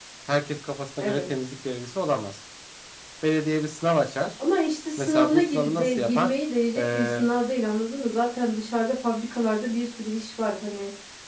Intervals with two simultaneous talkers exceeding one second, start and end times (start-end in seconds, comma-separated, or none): 5.0-6.3